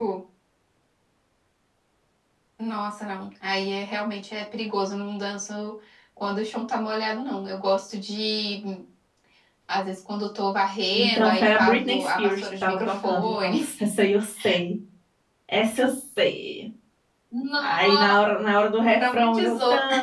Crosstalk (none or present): present